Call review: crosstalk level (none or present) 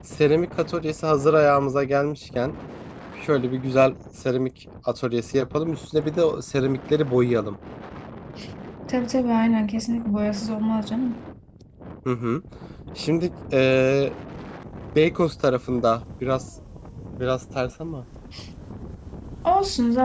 none